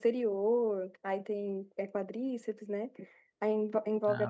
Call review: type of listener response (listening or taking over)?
listening